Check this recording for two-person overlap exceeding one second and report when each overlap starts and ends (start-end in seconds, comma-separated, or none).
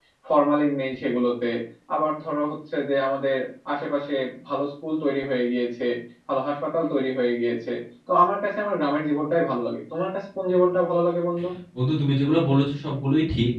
none